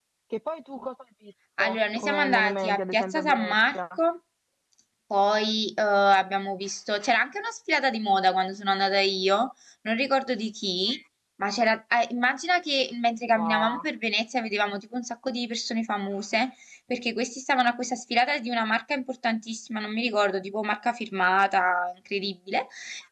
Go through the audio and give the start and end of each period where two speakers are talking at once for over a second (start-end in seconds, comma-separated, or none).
1.6-3.8